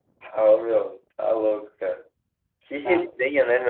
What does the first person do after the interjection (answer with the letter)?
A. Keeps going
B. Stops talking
A